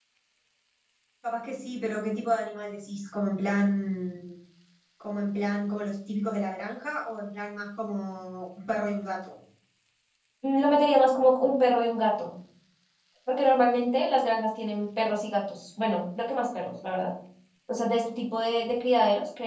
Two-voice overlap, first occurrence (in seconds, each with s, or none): none